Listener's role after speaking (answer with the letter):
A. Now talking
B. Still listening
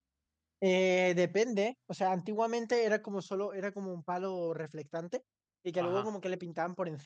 B